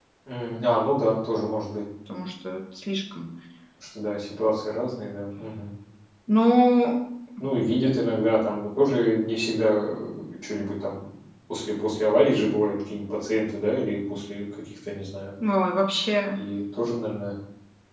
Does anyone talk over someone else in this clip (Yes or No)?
No